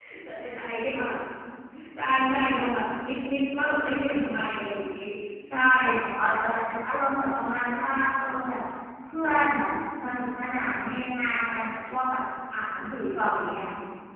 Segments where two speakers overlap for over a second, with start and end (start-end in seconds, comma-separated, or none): none